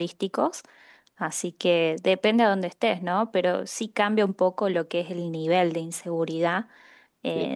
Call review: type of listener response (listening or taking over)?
listening